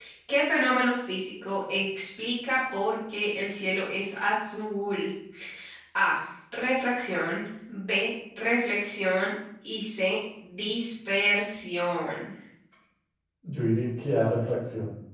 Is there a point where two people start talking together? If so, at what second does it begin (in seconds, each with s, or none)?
none